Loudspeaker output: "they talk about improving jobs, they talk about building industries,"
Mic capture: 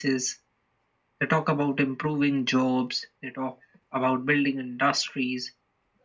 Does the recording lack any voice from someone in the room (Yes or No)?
Yes